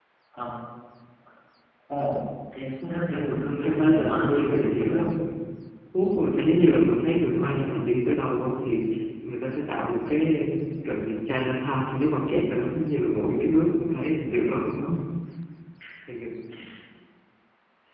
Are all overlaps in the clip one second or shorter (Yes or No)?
No